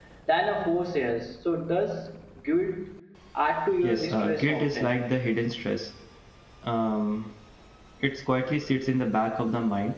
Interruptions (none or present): present